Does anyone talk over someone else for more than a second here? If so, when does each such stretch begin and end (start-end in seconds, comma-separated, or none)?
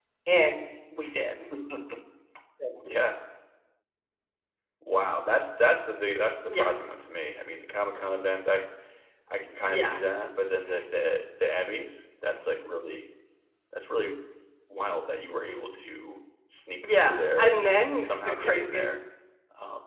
16.8-18.8